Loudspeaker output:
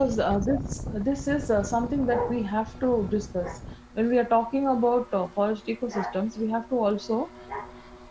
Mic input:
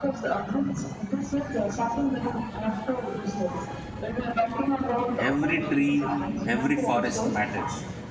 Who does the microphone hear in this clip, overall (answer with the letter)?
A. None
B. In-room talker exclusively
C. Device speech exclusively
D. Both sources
D